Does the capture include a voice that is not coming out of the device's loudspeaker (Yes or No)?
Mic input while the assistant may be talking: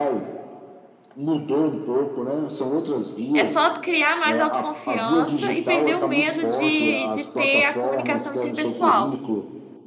Yes